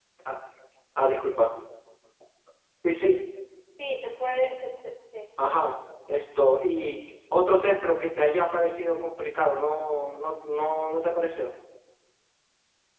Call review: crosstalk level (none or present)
none